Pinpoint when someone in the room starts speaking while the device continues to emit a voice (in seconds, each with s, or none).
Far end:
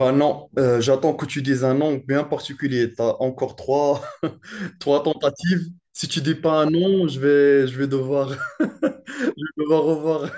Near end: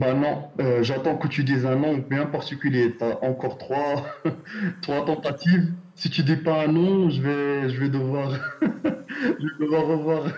none